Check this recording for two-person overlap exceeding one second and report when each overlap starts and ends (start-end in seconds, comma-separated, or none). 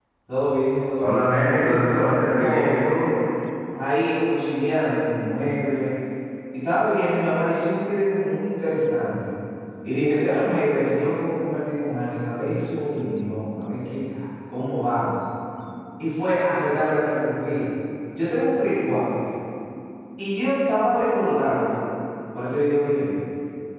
1.0-2.9